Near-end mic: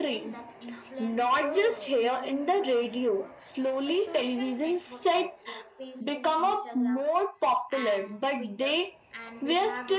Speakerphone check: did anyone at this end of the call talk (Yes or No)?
Yes